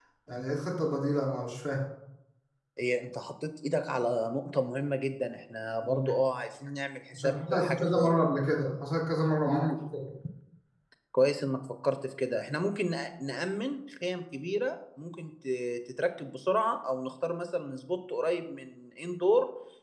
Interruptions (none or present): present